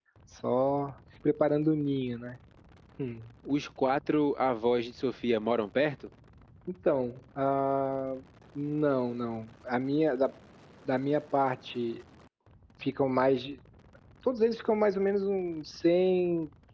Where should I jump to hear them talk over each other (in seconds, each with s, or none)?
none